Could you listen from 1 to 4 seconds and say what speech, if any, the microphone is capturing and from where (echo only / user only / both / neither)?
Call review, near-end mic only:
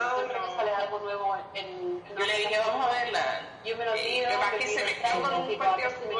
echo only